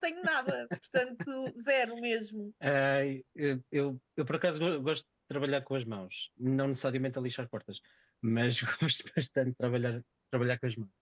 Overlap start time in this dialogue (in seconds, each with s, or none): none